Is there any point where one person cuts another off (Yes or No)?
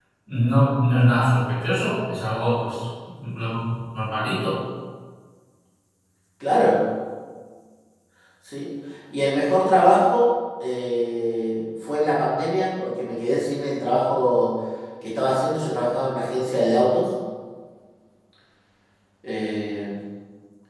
No